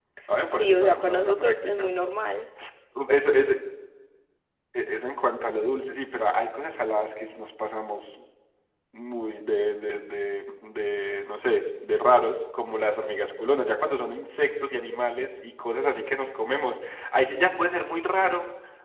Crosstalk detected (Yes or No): Yes